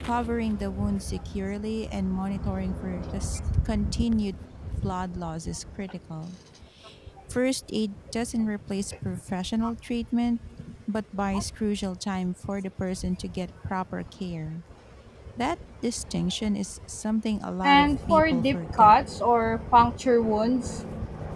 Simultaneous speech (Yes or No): Yes